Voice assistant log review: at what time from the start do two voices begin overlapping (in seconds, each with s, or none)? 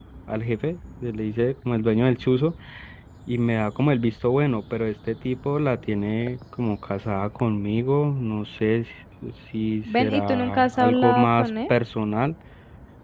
9.8 s